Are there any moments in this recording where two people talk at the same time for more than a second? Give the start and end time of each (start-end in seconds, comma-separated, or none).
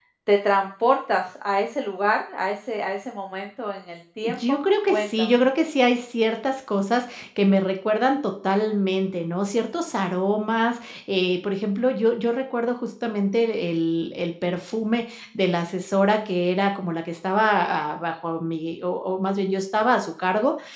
4.2-5.4